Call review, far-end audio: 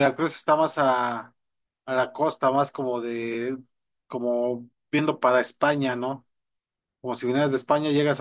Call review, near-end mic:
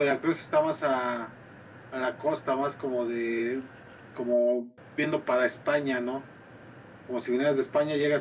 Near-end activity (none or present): none